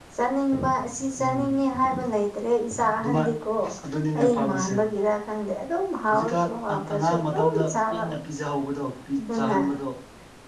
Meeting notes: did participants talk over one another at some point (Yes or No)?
Yes